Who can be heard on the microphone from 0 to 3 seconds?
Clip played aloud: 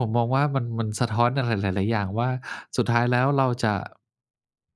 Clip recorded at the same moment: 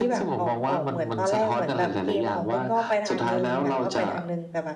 both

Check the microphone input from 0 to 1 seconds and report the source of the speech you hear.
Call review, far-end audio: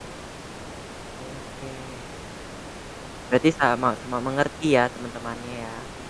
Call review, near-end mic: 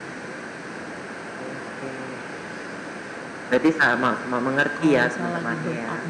neither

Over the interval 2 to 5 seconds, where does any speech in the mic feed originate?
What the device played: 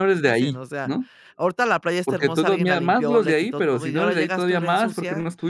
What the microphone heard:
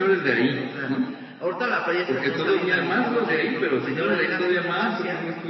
echo only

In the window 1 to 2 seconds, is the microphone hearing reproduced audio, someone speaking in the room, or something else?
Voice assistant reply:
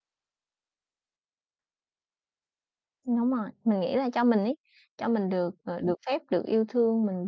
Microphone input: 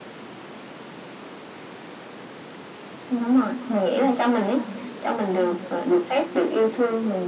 neither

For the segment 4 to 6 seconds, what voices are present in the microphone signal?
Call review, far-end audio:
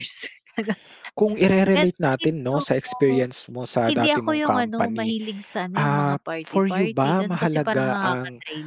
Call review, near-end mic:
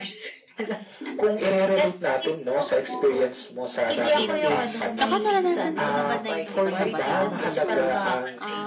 both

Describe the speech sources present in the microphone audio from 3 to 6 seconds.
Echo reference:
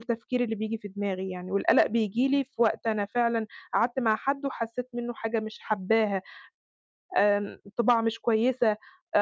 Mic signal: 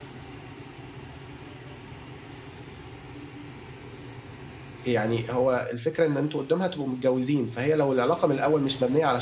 user only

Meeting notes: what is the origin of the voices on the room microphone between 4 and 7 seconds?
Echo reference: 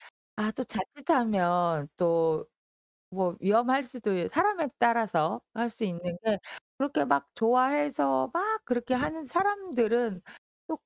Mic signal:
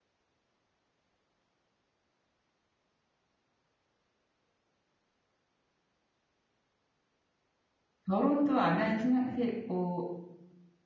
neither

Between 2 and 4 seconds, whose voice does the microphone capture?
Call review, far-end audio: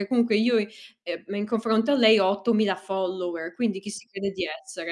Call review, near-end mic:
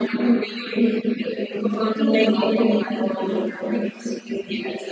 echo only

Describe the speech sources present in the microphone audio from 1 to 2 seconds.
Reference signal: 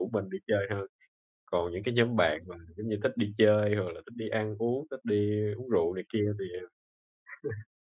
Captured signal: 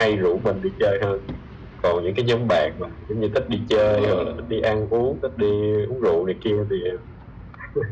echo only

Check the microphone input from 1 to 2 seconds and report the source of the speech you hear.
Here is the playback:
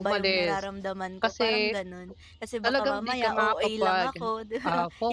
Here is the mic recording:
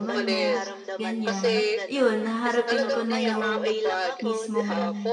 both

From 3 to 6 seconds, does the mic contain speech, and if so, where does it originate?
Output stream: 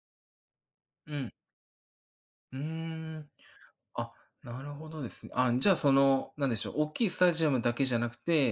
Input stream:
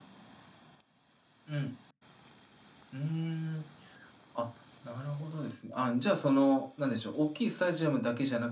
echo only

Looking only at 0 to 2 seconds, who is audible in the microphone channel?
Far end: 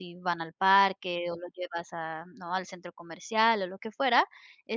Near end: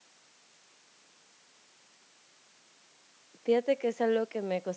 neither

